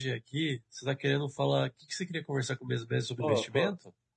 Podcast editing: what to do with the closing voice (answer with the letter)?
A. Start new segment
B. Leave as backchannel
A